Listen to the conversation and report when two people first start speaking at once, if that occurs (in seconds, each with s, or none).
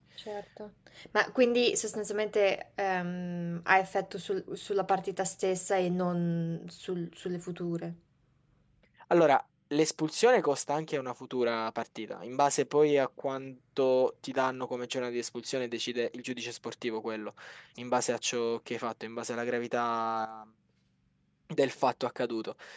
none